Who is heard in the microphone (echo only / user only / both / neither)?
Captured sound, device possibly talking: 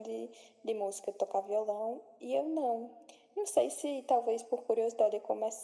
echo only